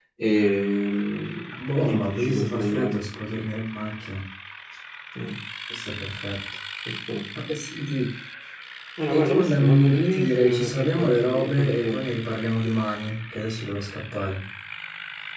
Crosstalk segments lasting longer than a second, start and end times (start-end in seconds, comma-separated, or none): 1.8-3.1, 9.1-12.0